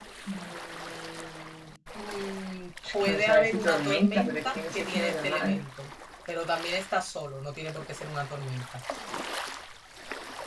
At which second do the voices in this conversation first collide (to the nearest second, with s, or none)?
3 s